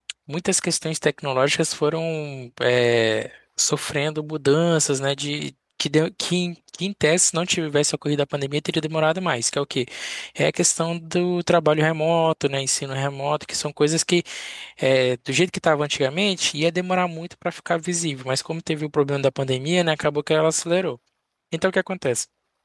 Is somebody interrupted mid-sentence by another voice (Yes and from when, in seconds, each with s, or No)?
No